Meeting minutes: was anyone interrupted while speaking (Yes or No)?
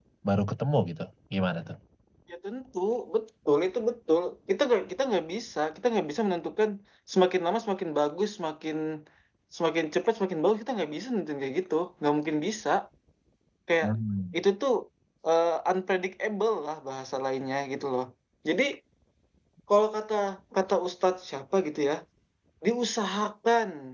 No